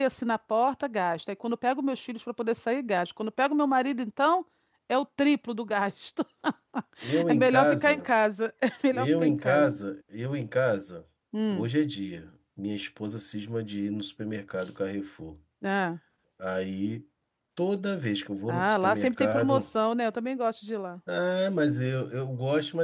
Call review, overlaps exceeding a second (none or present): present